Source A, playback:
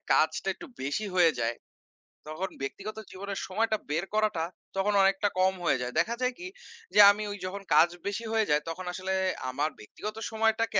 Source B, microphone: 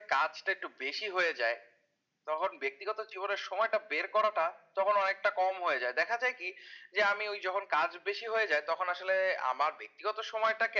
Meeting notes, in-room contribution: none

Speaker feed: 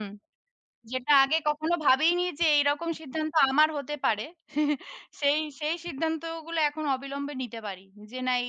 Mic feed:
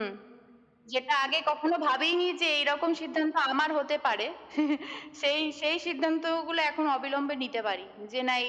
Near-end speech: none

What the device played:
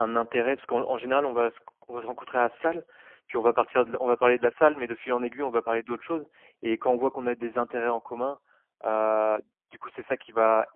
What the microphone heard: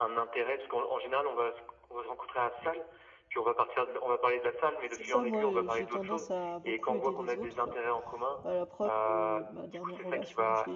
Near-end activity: present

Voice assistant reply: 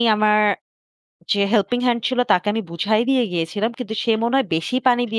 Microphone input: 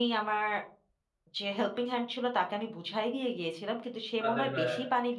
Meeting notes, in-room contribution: present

